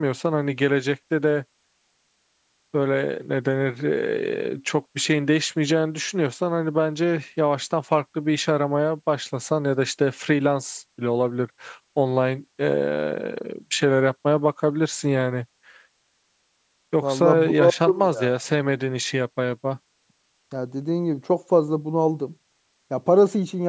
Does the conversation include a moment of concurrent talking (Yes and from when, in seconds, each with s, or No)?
Yes, from 17.0 s